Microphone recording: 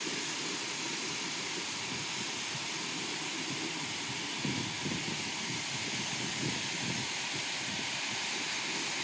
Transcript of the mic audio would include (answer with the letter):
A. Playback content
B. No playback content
B